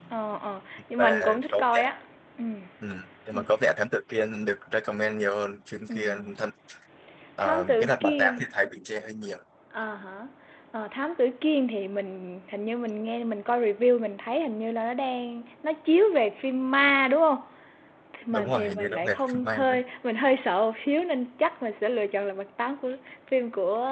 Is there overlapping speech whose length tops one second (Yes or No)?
Yes